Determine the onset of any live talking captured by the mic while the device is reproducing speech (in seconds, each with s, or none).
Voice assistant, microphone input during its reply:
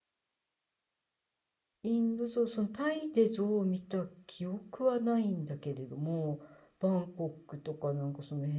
1.8 s